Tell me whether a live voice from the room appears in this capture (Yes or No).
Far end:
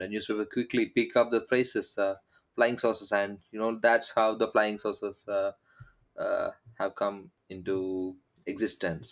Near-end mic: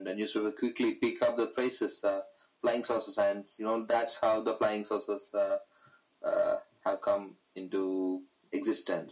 No